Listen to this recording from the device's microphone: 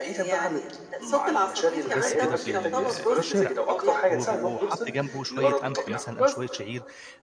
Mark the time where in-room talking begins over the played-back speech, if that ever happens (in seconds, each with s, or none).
1.9 s